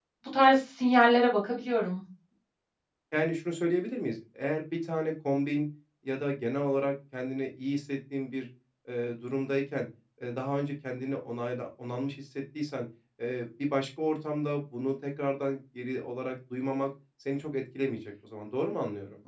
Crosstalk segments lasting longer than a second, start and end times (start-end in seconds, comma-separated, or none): none